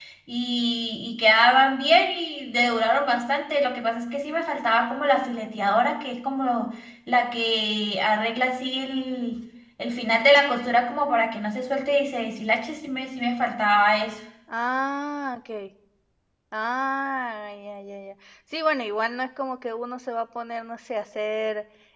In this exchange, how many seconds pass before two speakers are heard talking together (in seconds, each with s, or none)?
none